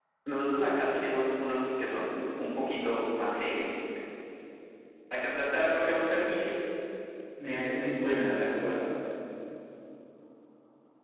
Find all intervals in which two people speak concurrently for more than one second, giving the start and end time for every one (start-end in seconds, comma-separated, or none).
none